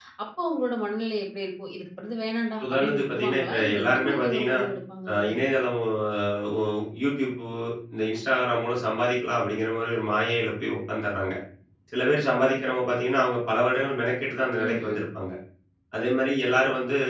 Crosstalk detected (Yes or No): Yes